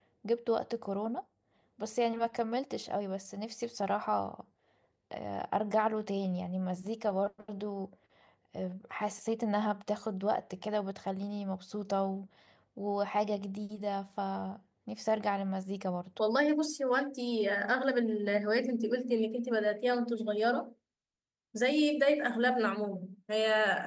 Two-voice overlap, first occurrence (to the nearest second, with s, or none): none